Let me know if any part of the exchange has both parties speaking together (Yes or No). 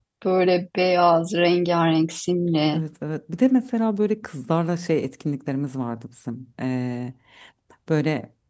No